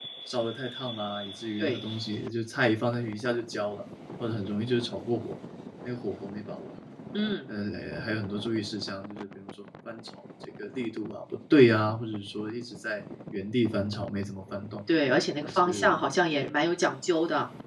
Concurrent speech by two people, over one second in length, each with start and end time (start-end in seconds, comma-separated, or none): none